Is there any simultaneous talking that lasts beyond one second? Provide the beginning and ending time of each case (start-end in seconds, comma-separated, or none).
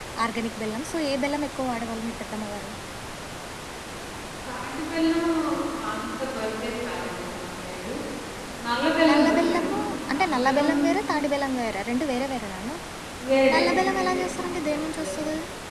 9.1-10.7, 13.5-15.2